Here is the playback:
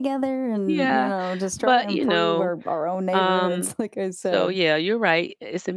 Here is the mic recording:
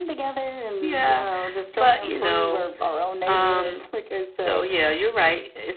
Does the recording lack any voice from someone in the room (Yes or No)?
Yes